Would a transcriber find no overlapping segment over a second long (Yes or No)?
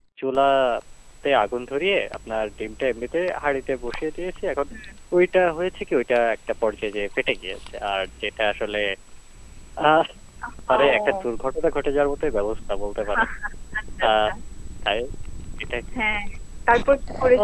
Yes